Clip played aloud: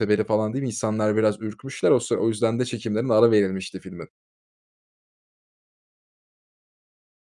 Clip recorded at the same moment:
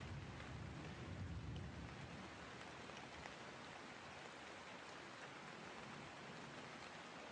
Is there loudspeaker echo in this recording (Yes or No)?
No